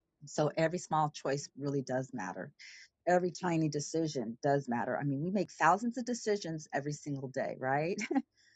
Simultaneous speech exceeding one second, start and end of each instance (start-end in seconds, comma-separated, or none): none